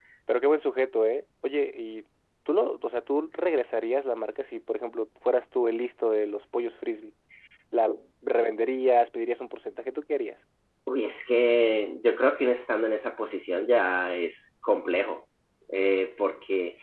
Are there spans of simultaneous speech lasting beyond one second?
No

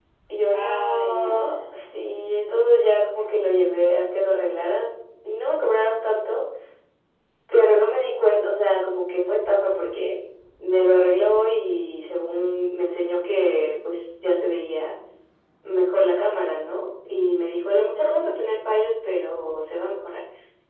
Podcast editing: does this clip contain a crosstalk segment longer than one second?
Yes, from 0.5 s

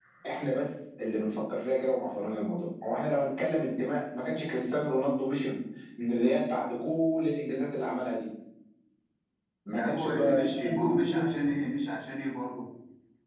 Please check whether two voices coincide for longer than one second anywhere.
Yes, from 9.7 s

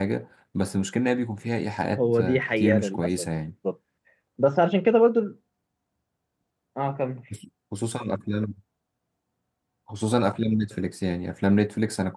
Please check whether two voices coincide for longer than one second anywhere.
Yes, from 1.9 s

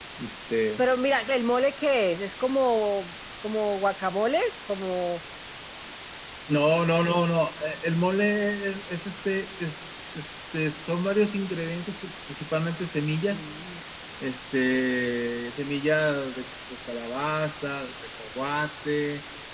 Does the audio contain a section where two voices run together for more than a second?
No

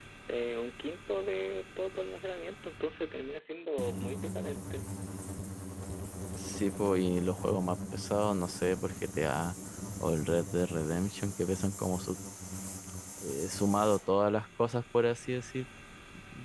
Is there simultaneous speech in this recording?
No

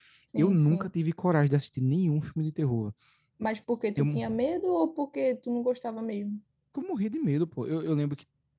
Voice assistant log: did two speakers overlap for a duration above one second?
No

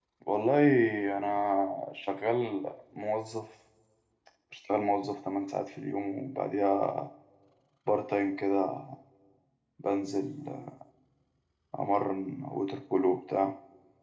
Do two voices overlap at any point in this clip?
No

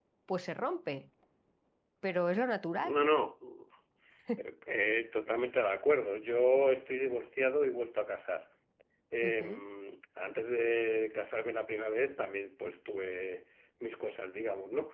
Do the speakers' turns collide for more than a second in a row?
No

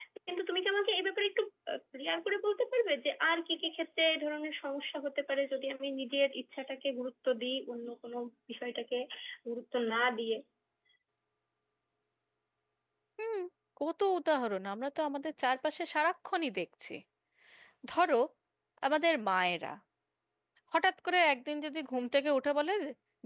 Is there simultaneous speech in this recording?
No

